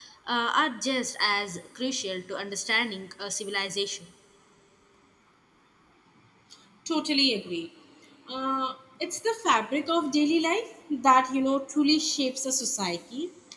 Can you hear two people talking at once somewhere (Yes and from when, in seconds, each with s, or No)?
No